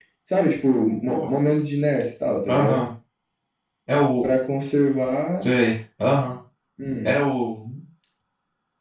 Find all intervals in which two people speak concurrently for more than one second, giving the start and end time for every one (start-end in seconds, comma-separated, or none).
none